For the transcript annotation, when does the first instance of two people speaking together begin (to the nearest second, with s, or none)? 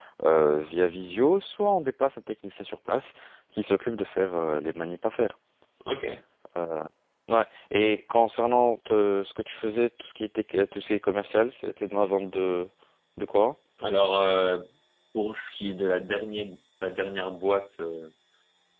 none